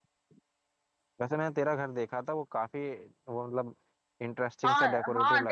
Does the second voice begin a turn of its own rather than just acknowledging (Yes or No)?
Yes